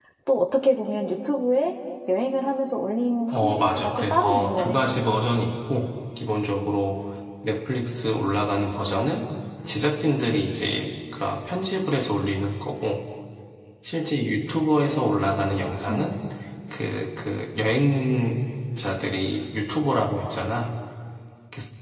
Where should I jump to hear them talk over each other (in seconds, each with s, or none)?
3.3 s